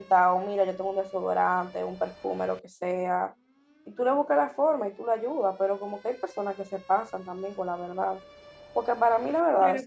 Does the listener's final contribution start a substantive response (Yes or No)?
No